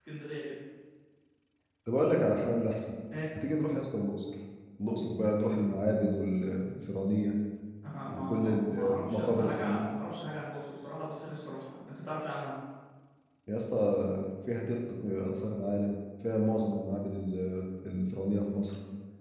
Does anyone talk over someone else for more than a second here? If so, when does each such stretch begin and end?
8.1-9.9

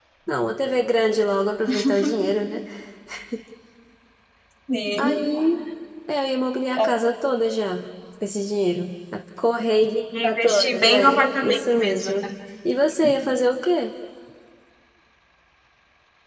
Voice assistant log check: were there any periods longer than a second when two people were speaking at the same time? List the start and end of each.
10.2-12.2

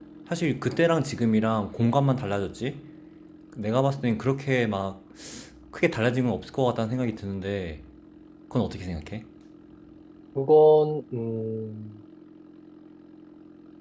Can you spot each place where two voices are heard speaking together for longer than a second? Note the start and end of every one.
none

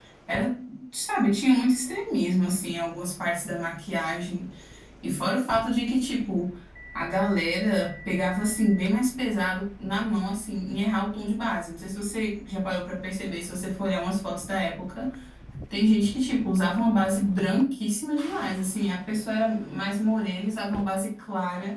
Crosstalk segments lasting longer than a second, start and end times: none

